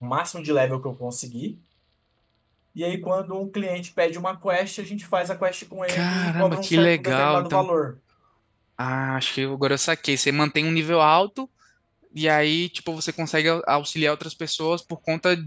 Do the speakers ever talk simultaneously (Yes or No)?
Yes